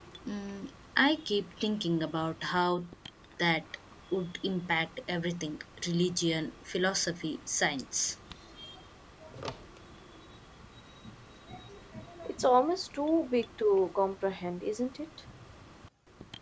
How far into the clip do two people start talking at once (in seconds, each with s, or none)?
none